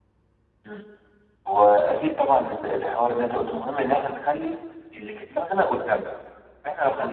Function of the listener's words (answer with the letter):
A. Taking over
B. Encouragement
B